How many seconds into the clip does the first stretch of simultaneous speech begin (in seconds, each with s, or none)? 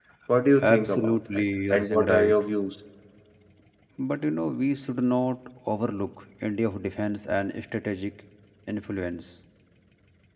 0.7 s